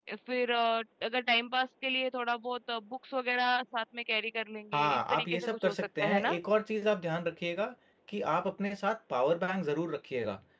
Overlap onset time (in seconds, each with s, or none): 4.7 s